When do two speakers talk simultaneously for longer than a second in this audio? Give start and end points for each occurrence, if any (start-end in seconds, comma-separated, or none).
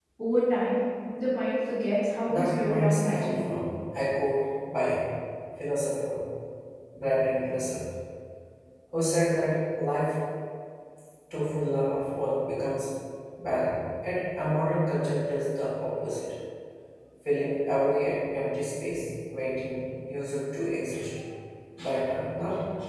2.3-3.6